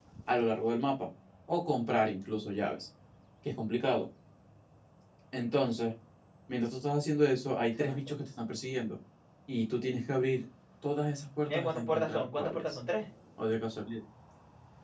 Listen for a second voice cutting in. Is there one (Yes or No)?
Yes